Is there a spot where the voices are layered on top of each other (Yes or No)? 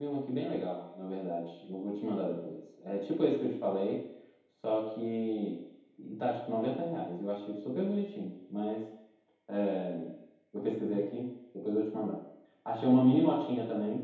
No